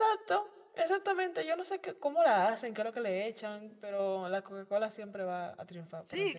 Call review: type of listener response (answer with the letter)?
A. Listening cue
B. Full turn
B